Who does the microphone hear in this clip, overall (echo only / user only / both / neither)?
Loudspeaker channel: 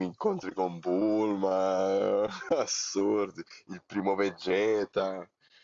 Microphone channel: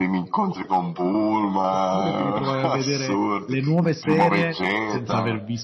both